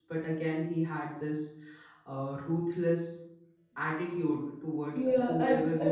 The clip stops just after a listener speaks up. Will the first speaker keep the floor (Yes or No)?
No